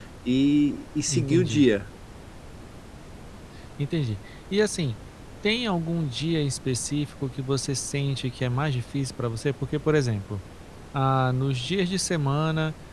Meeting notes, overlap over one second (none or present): none